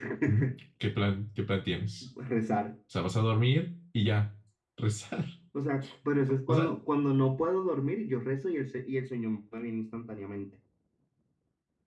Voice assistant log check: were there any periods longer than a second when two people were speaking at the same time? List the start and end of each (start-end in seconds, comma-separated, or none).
none